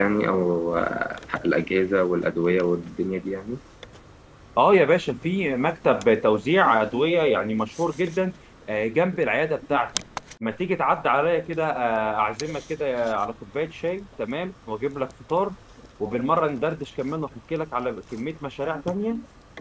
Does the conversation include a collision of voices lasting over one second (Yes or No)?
No